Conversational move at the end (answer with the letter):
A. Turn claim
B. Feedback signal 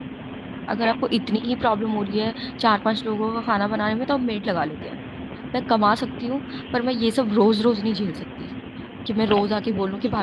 A